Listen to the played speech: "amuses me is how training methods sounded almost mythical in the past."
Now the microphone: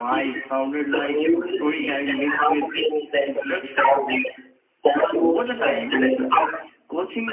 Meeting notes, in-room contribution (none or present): present